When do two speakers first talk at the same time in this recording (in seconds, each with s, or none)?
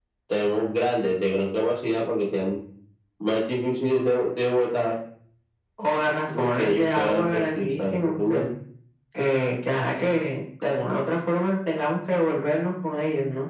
6.4 s